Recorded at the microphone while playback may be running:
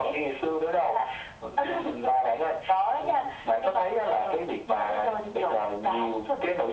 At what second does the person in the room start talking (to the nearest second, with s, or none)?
none